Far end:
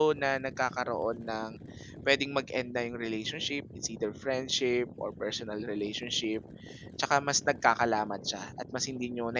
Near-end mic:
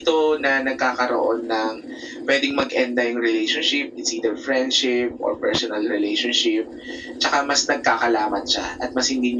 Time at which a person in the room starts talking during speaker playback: none

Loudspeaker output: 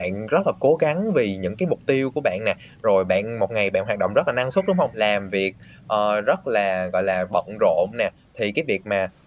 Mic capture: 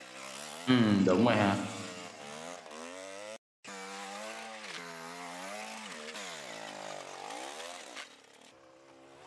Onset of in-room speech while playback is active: 1 s

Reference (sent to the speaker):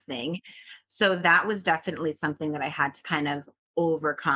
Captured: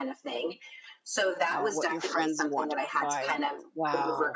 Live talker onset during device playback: 2 s

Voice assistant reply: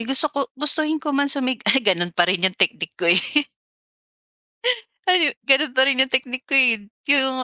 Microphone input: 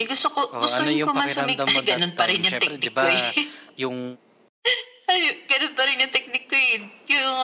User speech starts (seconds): 1 s

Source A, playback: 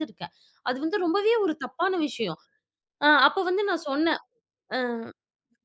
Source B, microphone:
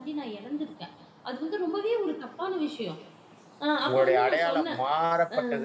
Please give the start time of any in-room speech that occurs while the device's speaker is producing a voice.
4 s

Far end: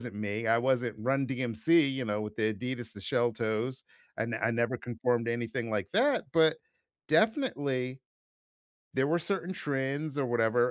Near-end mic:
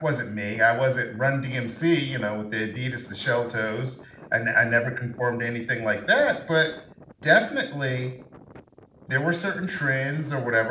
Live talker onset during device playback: none

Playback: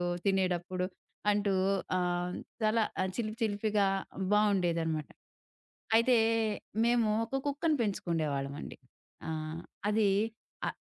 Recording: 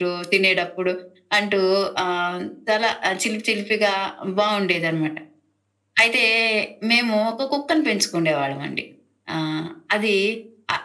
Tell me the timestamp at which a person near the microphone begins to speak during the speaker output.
none

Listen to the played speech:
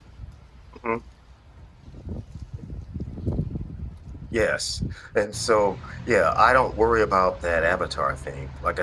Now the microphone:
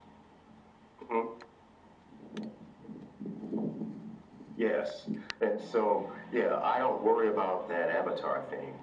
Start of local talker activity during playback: none

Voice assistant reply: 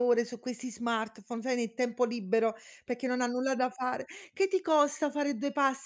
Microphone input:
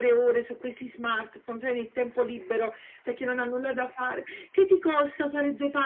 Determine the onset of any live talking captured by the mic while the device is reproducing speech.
none

